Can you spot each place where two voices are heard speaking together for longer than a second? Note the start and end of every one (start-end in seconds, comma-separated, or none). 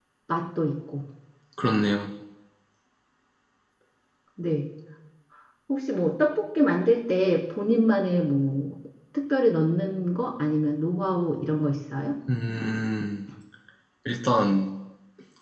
none